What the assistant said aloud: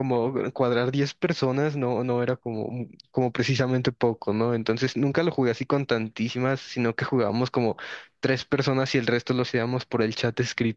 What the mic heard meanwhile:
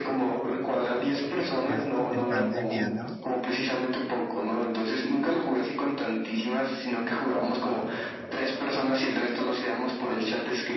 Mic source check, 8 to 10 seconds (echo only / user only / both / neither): echo only